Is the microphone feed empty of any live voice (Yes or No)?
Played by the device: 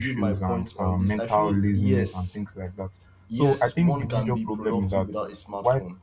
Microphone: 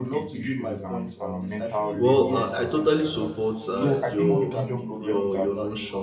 No